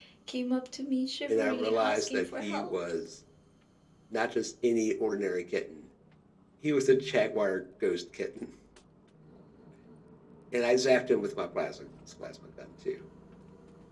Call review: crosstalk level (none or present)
present